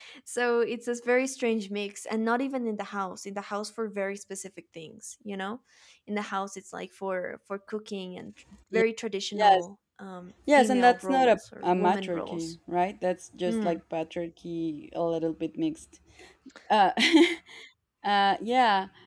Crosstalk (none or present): present